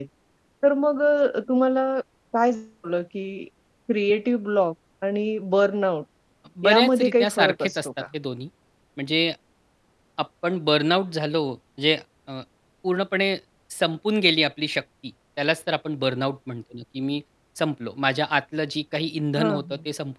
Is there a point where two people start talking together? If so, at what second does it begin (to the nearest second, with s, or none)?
7 s